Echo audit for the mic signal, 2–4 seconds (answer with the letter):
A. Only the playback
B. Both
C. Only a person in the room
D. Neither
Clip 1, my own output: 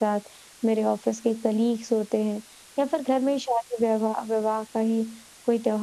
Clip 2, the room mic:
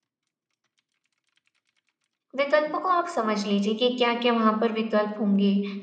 C